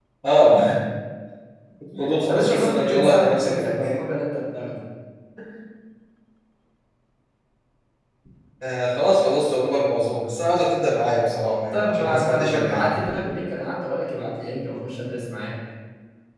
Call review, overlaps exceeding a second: present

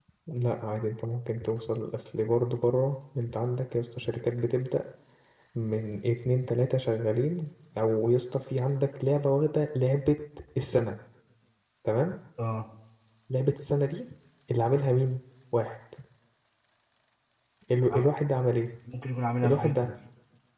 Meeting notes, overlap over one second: none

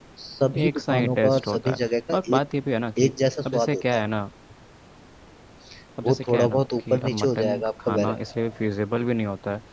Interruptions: present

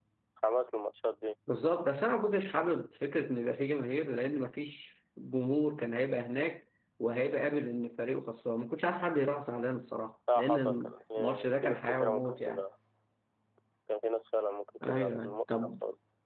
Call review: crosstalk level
present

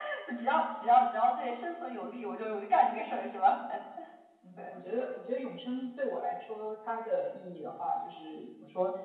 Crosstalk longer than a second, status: none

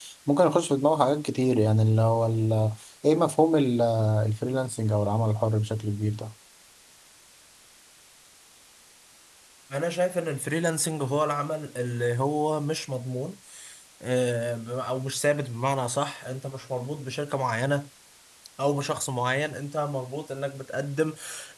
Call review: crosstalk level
none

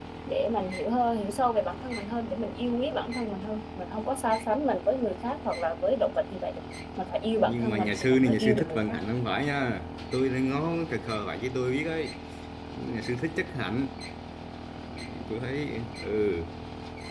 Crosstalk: present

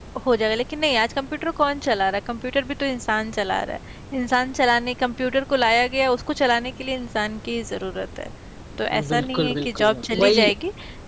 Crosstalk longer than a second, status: present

